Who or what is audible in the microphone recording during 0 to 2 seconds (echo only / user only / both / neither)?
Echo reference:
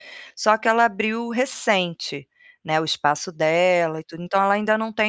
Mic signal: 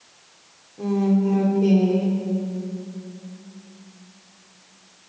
user only